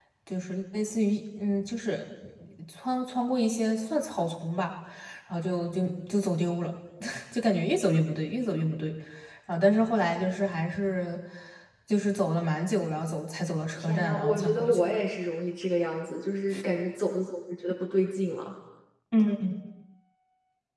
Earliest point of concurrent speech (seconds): 13.8 s

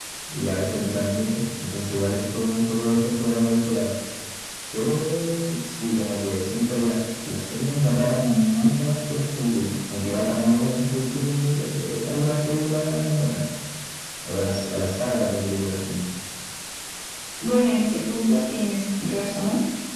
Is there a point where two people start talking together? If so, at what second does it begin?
none

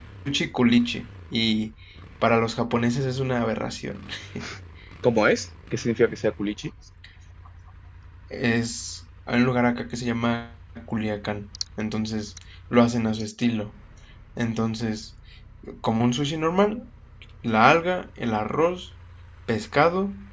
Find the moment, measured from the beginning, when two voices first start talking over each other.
none

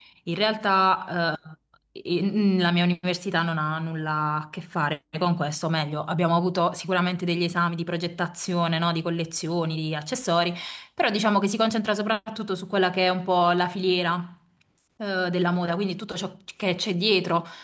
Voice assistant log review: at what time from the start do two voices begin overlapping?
none

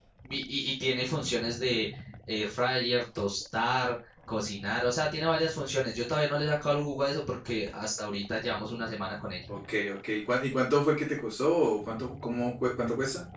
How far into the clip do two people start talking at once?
none

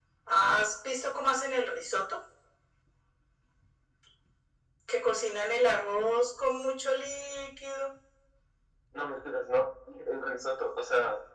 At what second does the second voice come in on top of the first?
none

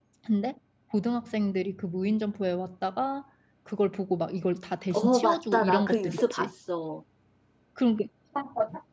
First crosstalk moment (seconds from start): 4.9 s

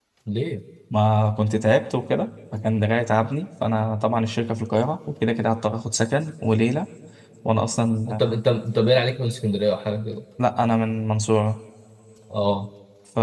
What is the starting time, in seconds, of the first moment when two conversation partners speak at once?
none

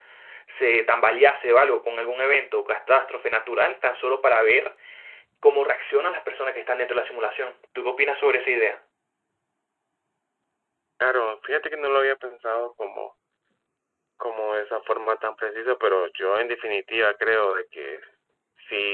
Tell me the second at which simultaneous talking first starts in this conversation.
none

